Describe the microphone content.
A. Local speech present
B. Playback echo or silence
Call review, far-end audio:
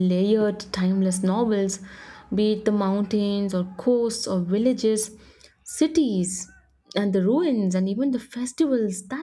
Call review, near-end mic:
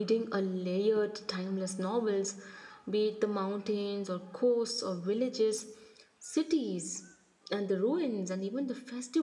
B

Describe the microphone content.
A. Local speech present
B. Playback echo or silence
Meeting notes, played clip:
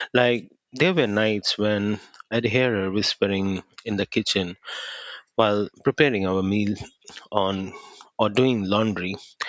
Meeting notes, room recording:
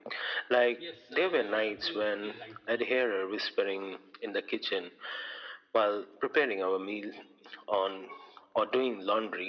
A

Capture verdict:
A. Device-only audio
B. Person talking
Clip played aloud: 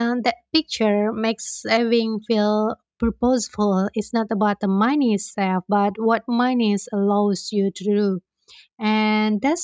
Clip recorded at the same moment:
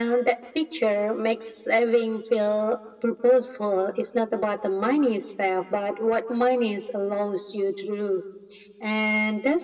A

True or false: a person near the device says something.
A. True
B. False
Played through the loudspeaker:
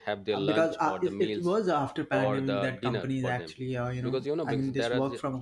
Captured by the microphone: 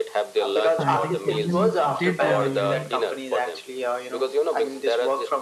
A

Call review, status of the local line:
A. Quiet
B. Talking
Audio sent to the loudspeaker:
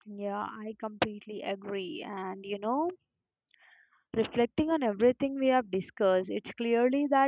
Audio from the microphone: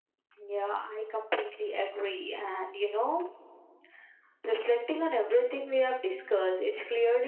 A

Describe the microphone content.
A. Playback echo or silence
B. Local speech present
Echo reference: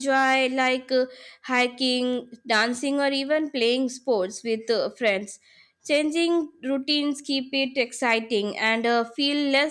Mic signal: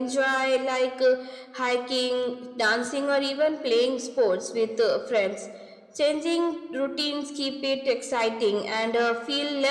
A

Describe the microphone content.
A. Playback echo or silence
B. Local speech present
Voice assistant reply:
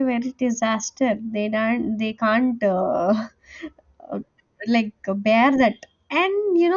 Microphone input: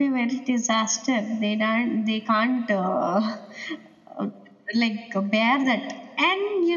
A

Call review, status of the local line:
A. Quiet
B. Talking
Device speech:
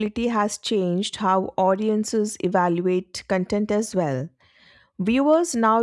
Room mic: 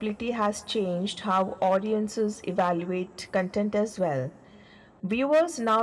A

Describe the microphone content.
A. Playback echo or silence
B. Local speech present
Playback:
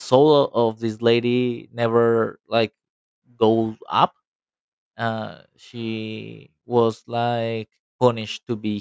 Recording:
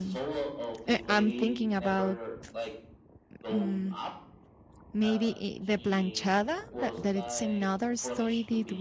B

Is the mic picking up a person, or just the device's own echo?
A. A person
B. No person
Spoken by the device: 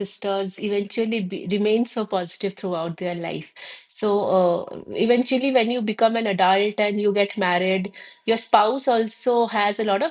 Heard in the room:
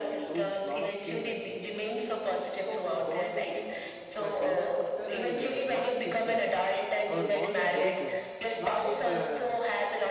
A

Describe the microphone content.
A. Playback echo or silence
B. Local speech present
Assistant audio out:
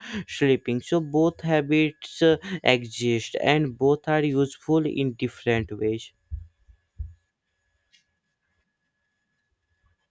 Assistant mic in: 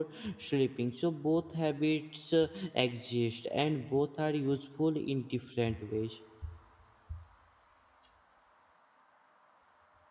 A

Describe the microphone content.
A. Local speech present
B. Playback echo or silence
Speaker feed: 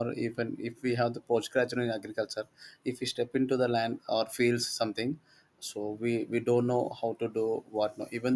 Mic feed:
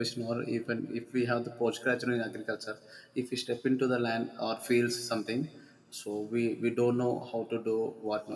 B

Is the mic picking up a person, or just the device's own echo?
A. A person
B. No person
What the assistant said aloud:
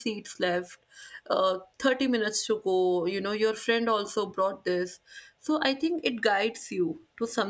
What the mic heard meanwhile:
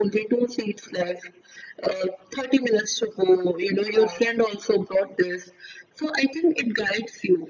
A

